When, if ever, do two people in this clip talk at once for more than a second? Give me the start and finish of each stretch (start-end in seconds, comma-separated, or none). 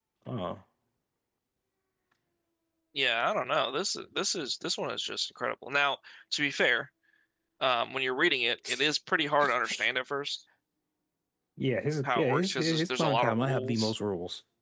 12.0-13.9